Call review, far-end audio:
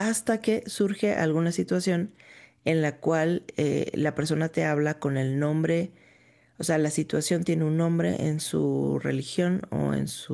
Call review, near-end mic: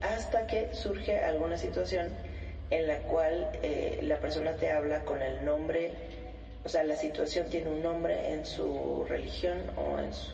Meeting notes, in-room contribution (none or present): none